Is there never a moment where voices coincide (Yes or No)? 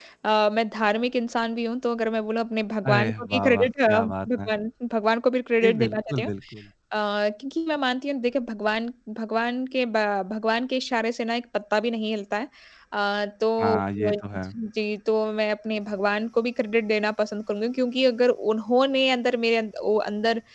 No